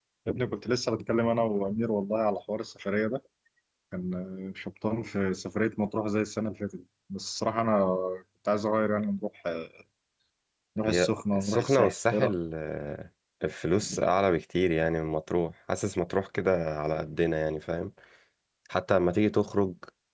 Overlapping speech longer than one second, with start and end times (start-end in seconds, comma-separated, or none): 10.9-12.3